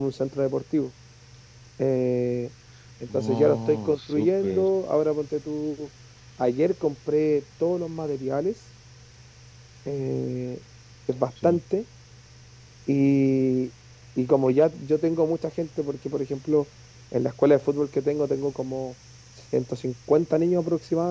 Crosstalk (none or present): present